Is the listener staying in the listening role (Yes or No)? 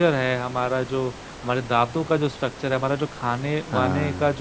Yes